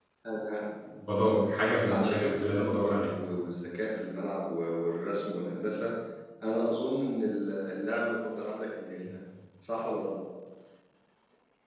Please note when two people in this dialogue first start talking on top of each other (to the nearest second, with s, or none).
2 s